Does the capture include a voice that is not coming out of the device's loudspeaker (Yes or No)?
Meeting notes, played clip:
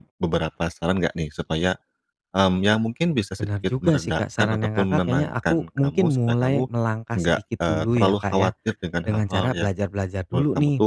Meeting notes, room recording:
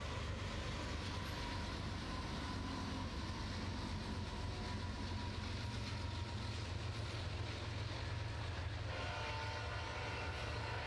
No